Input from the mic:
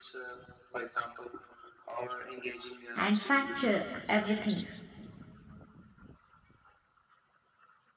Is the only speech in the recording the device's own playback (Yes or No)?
No